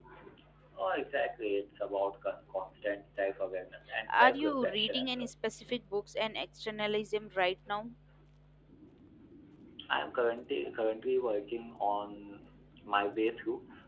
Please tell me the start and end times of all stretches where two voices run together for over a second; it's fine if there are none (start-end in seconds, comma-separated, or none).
4.1-5.3